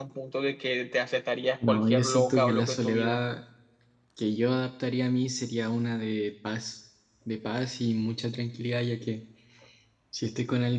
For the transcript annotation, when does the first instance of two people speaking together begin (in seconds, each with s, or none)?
1.6 s